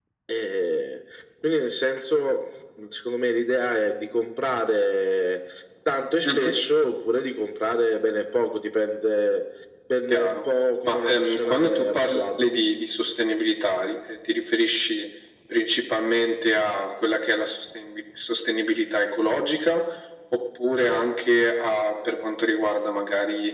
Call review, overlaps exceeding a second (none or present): present